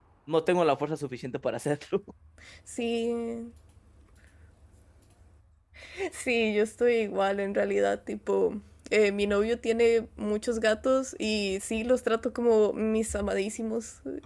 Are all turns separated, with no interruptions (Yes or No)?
Yes